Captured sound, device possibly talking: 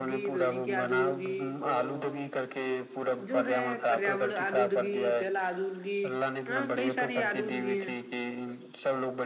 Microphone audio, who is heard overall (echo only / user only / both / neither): both